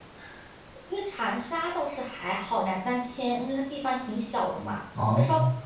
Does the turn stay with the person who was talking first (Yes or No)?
Yes